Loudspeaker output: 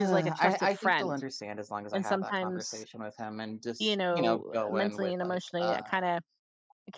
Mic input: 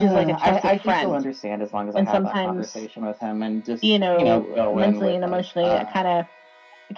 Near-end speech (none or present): none